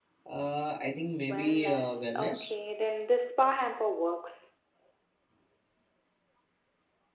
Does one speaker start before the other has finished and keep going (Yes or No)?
Yes